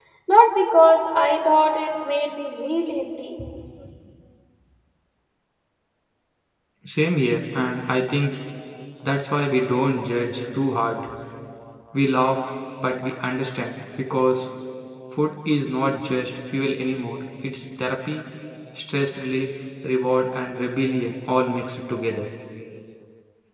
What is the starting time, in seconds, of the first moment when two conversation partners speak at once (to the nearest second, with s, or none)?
none